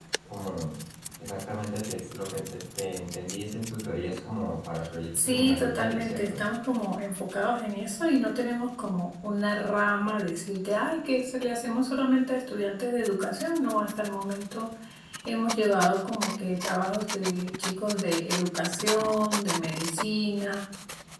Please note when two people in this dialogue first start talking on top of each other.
5.1 s

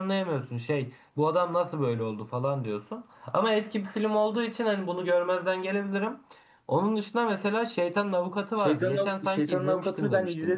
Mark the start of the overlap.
8.6 s

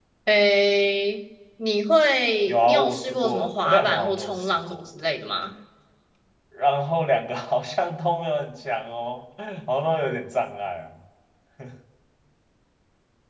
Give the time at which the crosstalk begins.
2.5 s

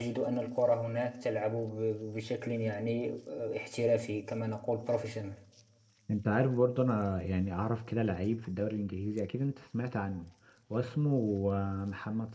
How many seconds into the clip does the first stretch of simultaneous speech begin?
none

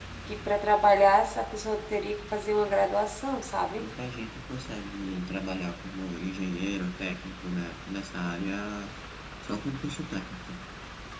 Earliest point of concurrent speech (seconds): none

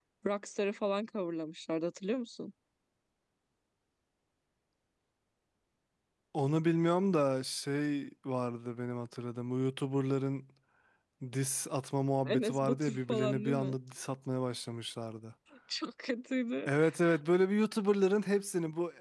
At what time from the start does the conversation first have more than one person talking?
12.2 s

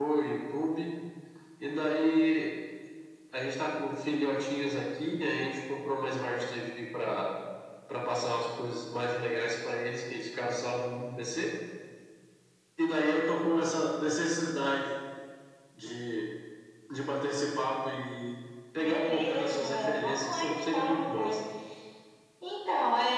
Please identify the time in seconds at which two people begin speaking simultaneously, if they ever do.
18.8 s

